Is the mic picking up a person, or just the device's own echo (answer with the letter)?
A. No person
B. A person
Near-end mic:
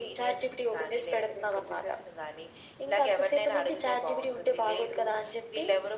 A